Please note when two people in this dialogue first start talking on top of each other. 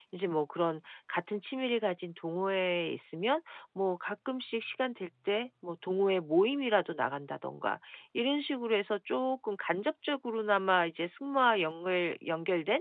none

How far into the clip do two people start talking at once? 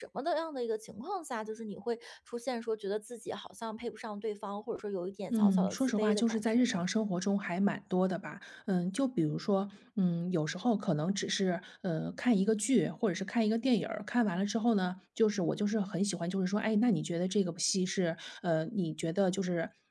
5.3 s

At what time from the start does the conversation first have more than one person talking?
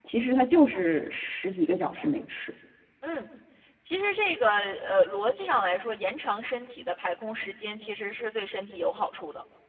none

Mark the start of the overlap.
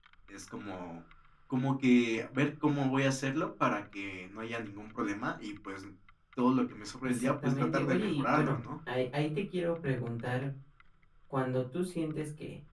7.0 s

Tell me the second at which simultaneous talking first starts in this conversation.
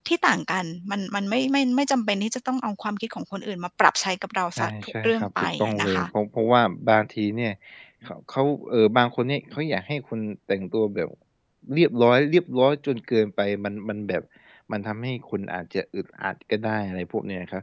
4.6 s

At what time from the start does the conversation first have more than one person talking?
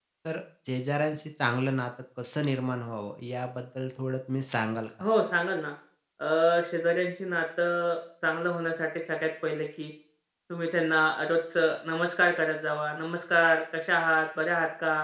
none

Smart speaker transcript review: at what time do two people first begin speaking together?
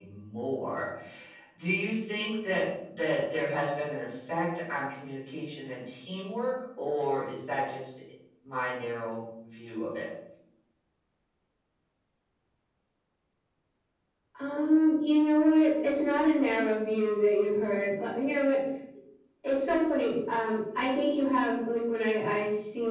none

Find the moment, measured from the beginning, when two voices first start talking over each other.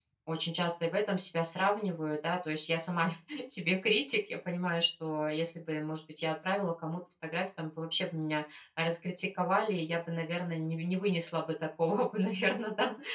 none

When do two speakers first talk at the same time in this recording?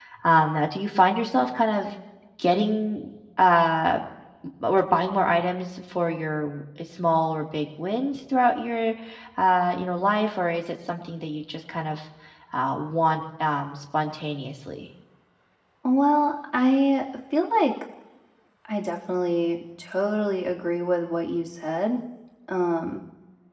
none

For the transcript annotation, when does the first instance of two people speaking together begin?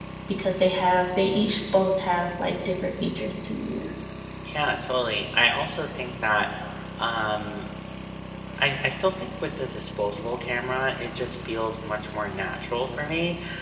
none

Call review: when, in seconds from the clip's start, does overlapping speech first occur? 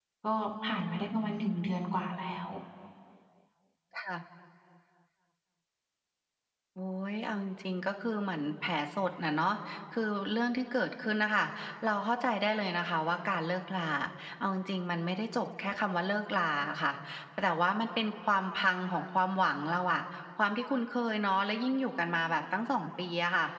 none

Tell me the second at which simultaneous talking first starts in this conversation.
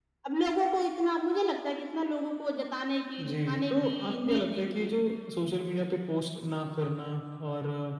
3.2 s

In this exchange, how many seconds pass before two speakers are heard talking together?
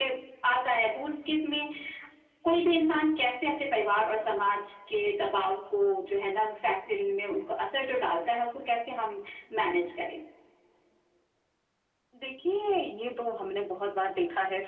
none

